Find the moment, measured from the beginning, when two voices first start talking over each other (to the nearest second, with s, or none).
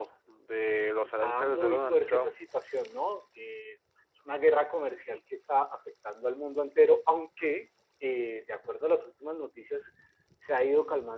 1 s